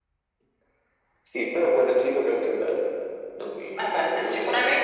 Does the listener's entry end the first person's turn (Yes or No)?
Yes